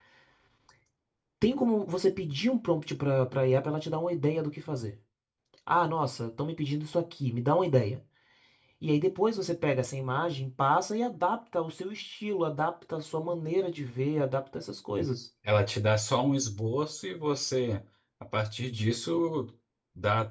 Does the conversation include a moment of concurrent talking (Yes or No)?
No